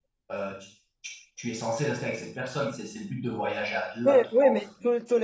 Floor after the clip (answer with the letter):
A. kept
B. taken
B